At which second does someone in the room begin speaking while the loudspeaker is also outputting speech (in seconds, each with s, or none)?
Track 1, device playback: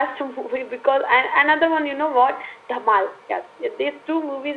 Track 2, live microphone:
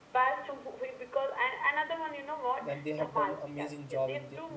2.6 s